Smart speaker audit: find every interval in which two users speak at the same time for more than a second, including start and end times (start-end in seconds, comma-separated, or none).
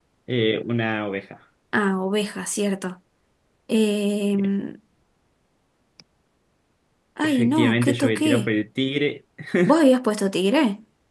7.2-8.5